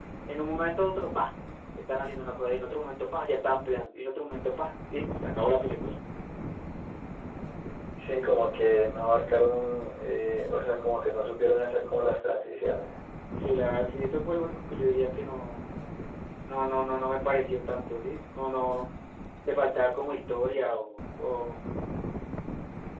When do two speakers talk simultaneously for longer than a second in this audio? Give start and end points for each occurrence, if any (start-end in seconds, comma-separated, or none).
none